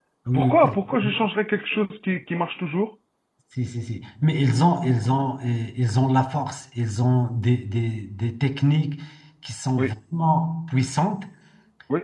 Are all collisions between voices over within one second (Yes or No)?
Yes